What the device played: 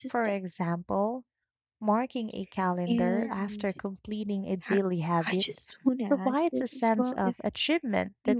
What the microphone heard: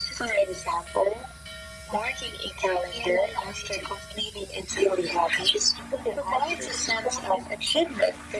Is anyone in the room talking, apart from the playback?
No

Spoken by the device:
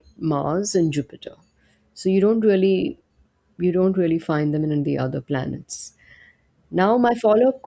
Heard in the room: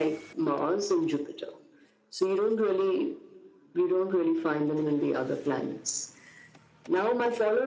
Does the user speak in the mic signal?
No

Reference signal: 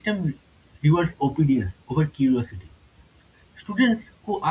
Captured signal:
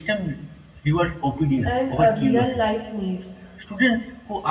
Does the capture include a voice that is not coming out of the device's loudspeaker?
Yes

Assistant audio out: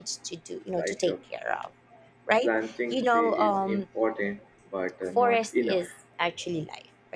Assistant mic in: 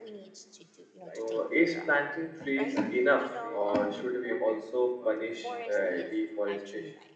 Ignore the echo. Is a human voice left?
Yes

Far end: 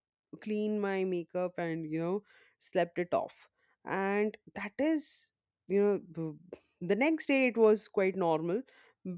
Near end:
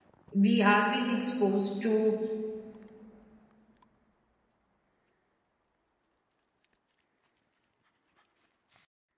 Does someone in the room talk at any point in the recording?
Yes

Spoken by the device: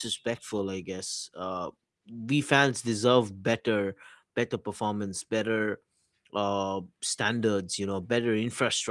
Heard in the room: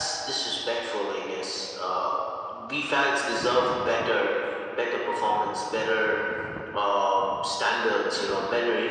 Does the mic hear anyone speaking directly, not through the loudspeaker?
No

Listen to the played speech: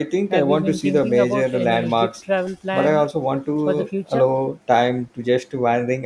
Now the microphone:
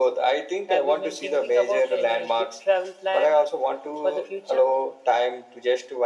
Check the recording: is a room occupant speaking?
No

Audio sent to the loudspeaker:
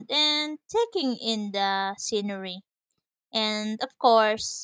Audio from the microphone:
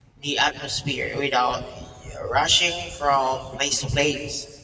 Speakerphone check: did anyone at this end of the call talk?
Yes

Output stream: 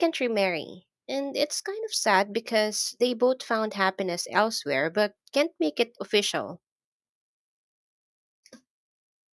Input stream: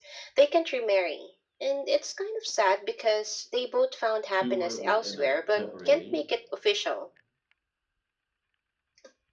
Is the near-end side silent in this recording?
No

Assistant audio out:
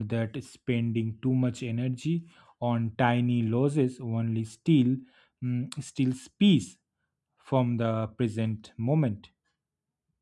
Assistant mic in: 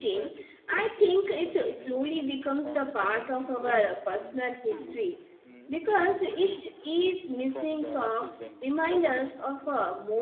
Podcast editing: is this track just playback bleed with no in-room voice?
No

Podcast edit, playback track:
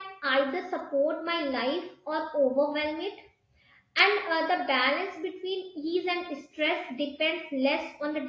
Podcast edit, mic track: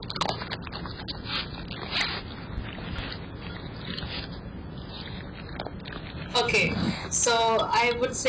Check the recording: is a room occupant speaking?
Yes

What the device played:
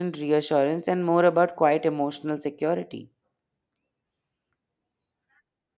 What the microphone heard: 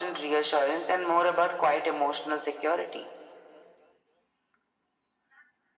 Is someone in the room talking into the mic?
No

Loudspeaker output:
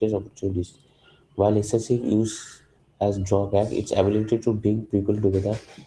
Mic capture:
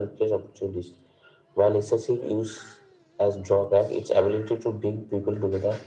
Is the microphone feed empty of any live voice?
Yes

